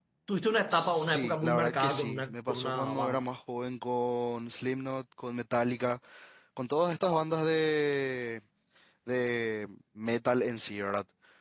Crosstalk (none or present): present